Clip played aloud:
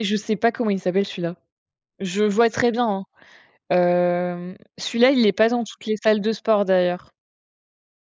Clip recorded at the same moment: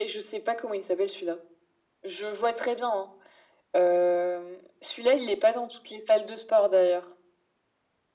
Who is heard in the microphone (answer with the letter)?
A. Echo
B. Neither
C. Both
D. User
A